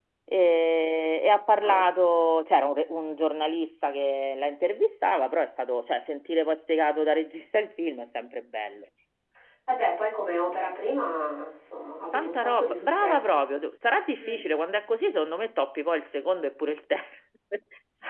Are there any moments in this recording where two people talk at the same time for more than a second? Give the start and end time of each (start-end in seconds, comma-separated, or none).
12.1-13.4